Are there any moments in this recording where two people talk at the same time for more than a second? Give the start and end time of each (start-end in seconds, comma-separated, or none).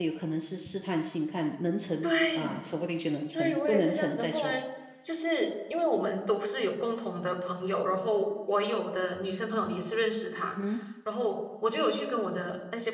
3.3-4.5